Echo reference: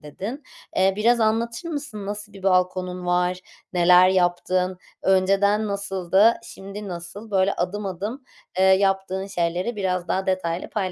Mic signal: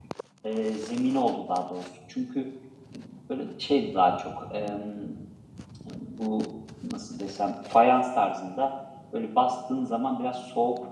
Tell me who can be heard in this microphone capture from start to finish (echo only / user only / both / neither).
user only